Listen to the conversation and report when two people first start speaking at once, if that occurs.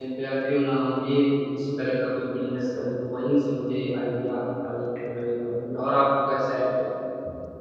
none

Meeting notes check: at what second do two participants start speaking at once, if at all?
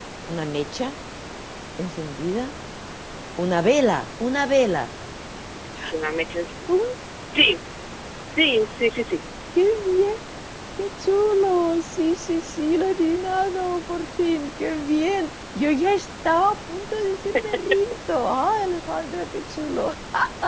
none

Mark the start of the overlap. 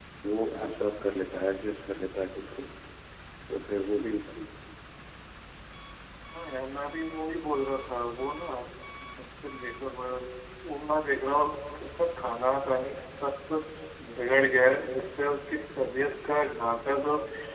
none

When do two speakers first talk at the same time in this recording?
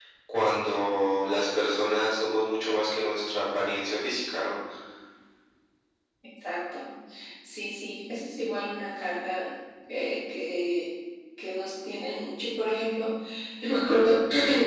none

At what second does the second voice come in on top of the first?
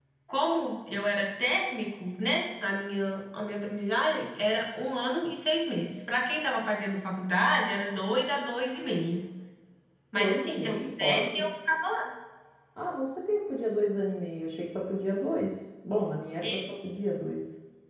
10.2 s

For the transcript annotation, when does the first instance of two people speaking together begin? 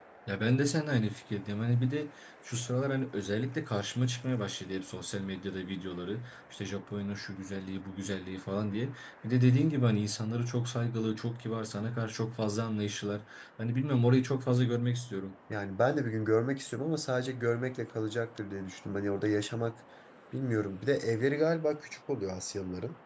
none

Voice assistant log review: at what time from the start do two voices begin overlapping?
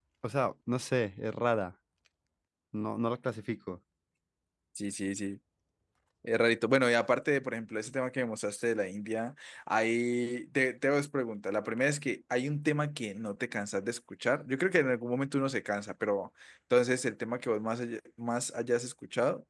none

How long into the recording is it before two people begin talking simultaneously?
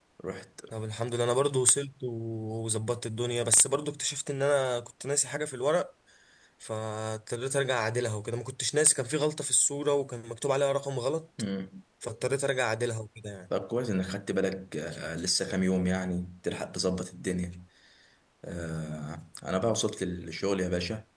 none

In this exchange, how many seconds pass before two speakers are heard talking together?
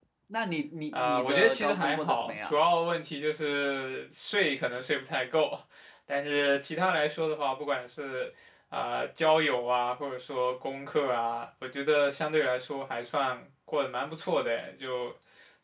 0.9 s

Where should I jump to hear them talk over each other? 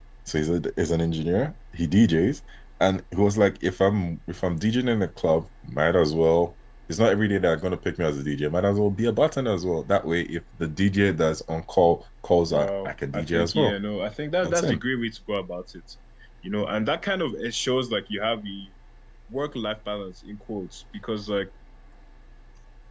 12.5 s

